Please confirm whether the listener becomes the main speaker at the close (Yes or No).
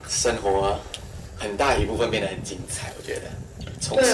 Yes